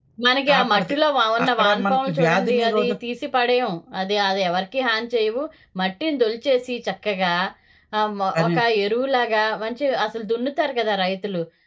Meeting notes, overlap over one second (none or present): present